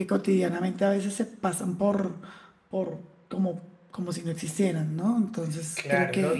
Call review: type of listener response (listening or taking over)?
taking over